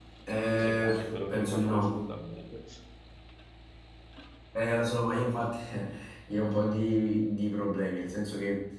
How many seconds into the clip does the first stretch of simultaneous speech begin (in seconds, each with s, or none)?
0.5 s